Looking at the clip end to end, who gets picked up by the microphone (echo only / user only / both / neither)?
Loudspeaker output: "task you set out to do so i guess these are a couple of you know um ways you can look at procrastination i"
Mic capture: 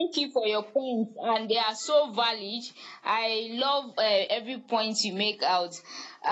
user only